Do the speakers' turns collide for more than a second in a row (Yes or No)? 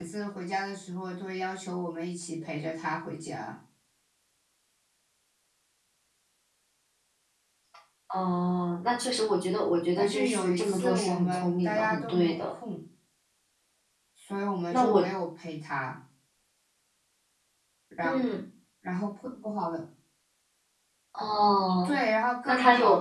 Yes